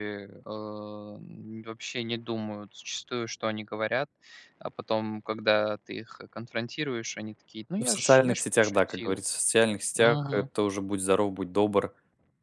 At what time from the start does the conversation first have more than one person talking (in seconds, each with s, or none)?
7.8 s